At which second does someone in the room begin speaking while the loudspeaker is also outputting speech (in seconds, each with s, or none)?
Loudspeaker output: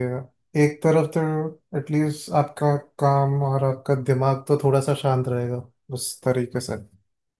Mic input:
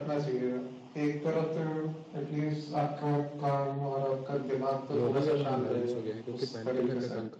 4.9 s